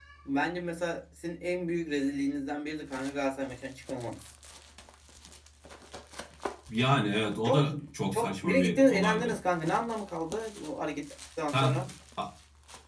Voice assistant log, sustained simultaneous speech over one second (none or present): present